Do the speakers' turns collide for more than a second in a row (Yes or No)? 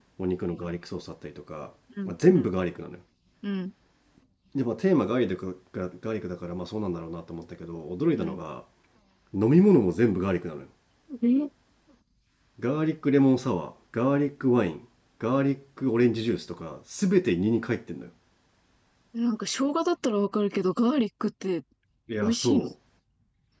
No